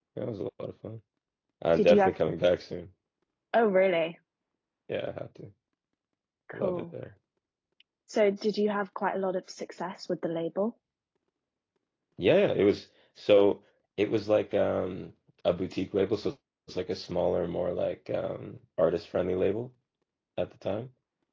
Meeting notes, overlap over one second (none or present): none